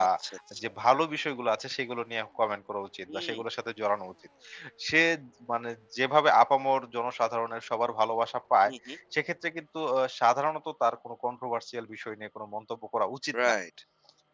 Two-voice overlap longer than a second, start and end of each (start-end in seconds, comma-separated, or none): none